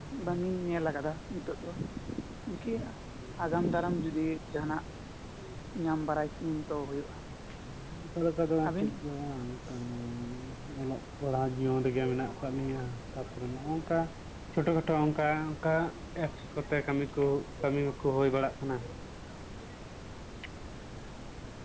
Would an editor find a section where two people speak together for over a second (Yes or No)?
No